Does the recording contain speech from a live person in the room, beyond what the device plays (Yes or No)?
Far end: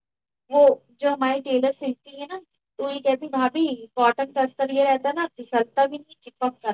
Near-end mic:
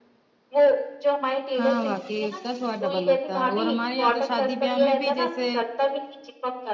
Yes